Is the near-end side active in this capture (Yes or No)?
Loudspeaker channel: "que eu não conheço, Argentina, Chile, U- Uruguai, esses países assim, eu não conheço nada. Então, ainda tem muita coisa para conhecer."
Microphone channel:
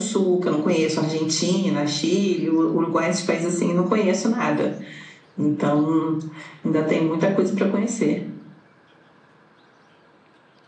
No